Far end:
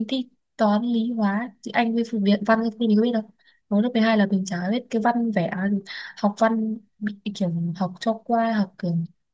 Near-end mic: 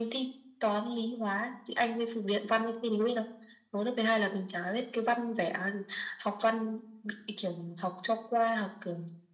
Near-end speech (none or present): none